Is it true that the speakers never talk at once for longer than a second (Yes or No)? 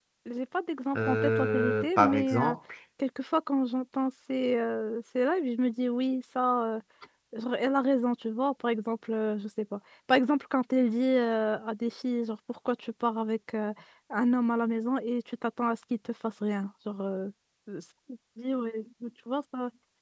No